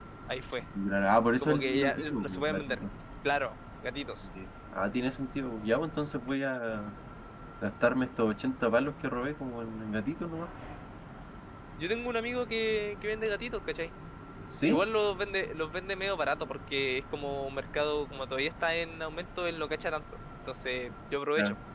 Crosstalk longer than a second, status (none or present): present